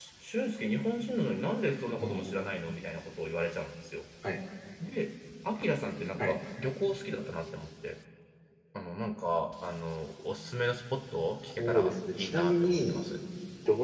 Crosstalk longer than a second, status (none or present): present